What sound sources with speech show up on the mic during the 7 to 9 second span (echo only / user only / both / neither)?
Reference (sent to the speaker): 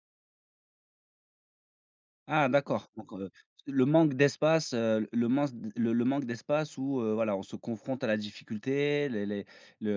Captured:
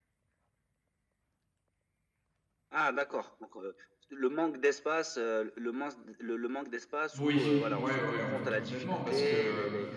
both